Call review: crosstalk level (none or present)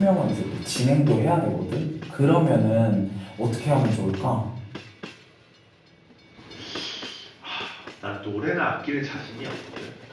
none